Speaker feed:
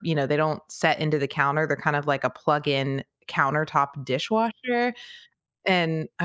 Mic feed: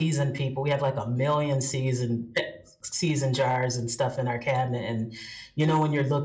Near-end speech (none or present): present